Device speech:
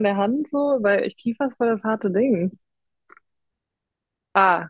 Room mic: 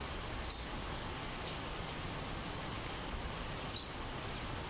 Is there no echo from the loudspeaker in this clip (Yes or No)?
Yes